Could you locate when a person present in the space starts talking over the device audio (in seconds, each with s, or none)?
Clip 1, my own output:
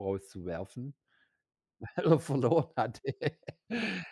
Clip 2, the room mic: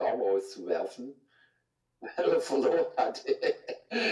none